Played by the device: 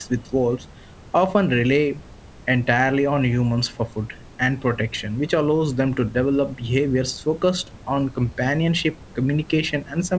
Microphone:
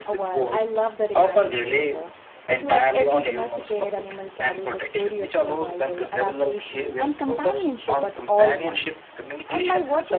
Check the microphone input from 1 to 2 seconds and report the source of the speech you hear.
both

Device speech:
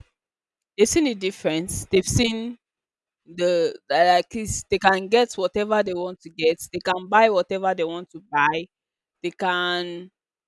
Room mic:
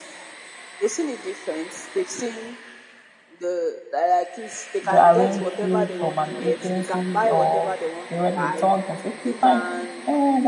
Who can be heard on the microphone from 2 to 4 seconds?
echo only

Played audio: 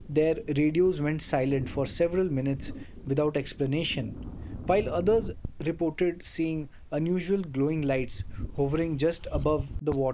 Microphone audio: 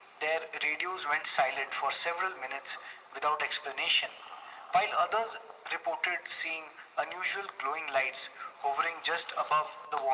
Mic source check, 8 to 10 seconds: echo only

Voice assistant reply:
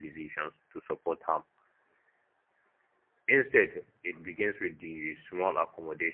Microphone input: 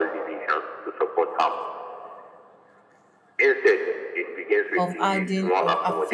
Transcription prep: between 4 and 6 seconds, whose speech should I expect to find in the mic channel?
both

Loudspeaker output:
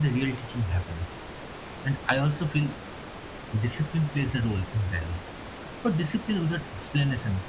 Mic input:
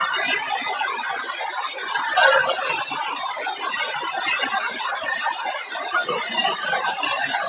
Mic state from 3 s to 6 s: echo only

